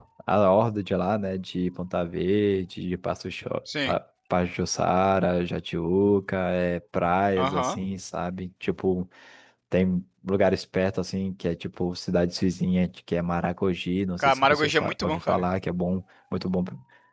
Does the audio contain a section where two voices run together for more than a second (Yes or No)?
Yes